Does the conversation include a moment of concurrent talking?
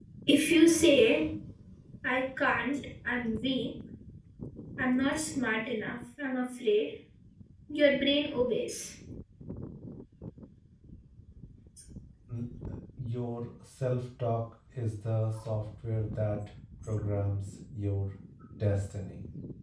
No

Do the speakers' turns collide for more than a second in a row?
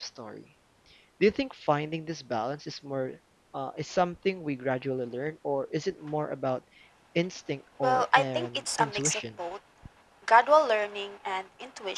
Yes, from 7.8 s

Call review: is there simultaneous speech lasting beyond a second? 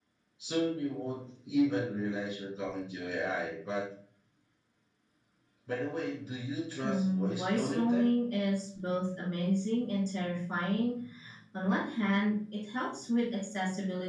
Yes, from 6.8 s

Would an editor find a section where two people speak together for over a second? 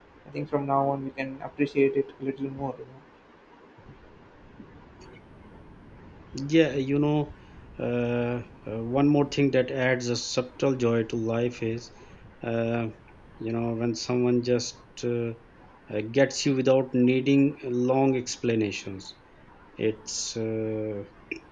No

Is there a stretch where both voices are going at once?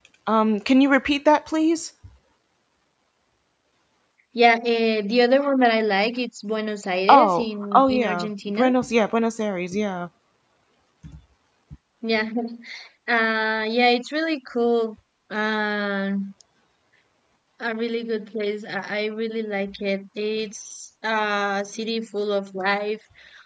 Yes, from 7.1 s

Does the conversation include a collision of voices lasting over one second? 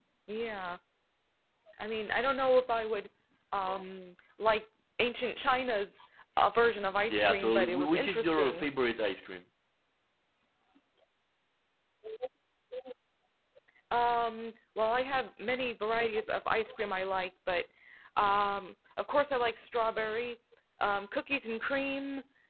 Yes, from 7.0 s

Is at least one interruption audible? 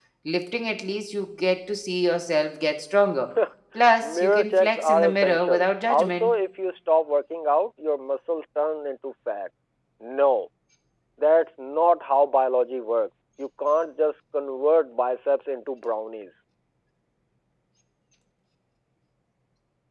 Yes, from 4.0 s

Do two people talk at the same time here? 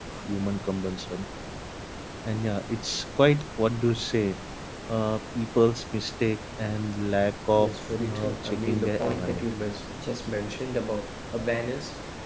Yes, from 7.5 s

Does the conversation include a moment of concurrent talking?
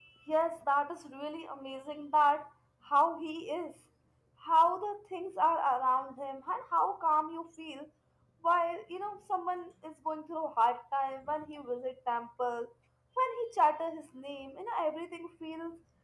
No

